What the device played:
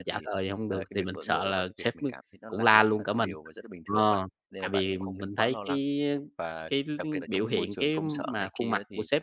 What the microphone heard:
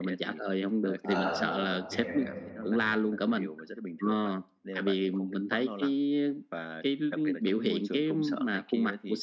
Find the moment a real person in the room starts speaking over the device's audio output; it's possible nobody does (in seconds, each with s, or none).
1.0 s